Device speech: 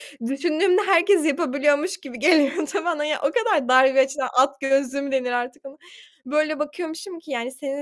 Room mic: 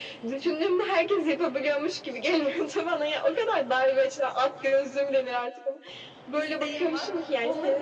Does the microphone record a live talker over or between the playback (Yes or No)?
Yes